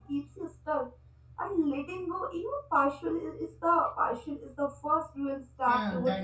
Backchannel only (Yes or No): No